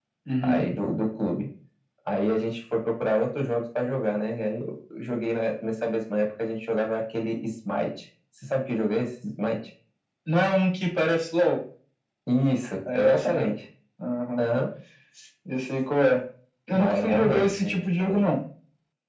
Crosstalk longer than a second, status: present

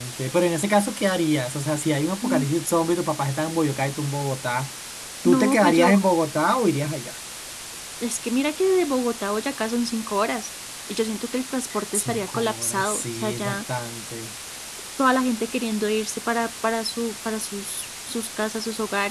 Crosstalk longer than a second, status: present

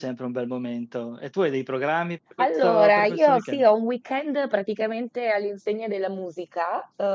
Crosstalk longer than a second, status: present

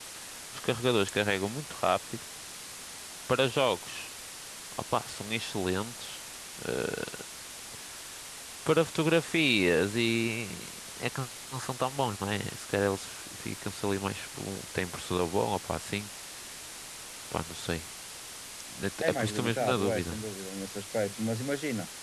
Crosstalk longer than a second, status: present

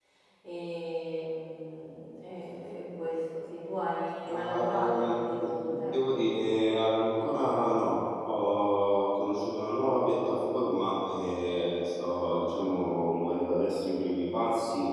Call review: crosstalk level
present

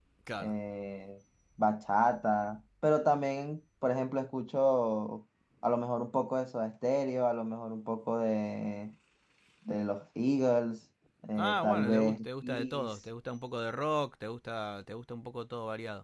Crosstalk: present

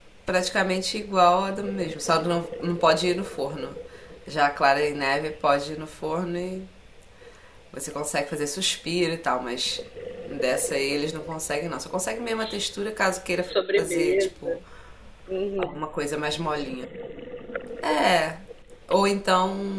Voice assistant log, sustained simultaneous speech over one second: present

